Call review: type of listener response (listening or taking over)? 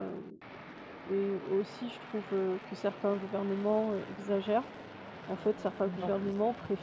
listening